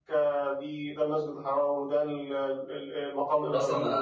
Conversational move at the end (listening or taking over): taking over